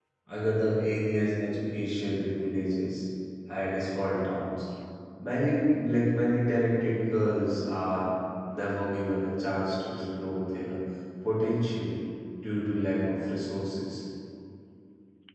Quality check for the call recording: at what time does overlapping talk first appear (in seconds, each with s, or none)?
none